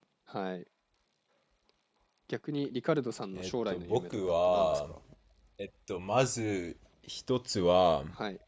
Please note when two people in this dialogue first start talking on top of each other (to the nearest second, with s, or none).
3 s